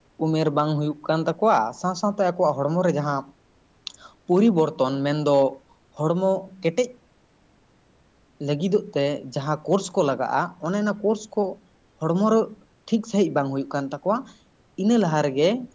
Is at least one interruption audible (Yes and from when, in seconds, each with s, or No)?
No